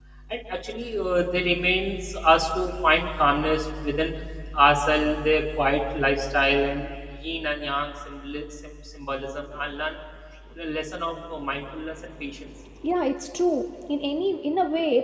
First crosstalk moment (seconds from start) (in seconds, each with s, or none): none